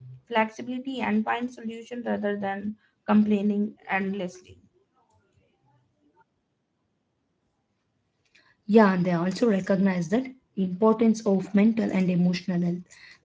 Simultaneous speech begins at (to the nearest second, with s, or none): none